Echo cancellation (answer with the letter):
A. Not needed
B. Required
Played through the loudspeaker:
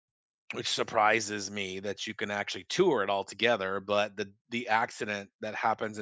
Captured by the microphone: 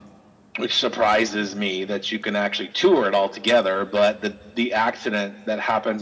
B